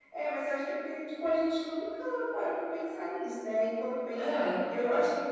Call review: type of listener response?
listening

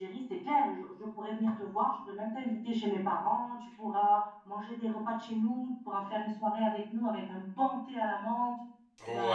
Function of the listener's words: taking over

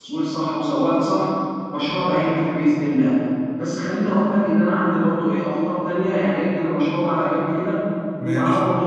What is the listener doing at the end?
listening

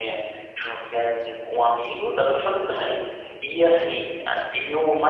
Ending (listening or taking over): listening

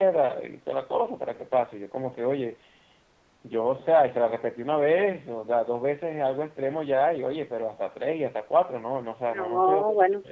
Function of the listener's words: taking over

